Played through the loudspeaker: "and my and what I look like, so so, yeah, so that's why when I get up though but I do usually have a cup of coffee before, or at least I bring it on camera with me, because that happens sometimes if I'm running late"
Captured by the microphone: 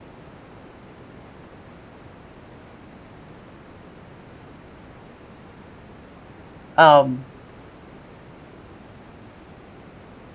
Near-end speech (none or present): present